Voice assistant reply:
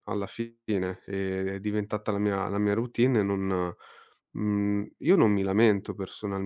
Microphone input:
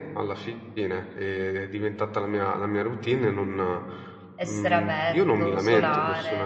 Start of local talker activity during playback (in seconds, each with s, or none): 4.3 s